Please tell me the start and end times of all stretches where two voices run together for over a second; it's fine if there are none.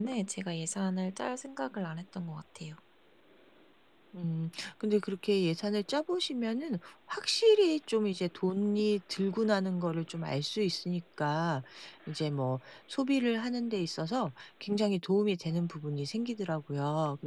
none

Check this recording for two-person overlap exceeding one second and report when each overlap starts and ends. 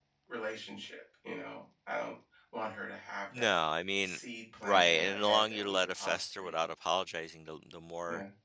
4.6-6.5

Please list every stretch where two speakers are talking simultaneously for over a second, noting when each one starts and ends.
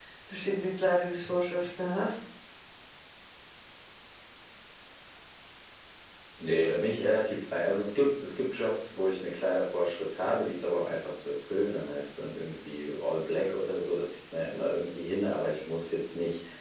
none

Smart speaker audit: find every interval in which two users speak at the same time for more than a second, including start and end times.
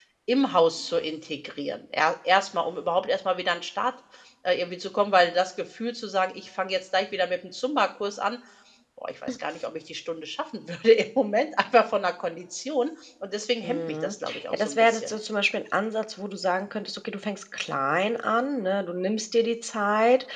13.6-15.2

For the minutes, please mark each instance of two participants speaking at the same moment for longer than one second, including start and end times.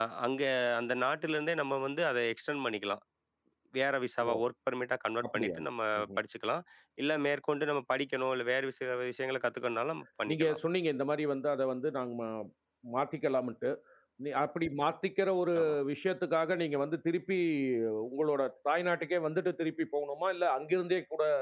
none

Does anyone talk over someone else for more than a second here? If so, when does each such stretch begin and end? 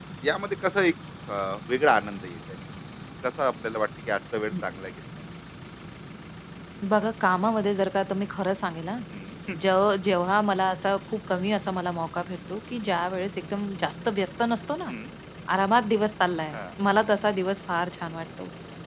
none

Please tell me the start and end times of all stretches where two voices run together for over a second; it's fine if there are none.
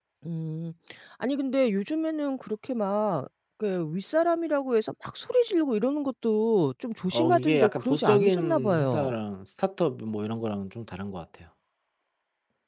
7.1-9.1

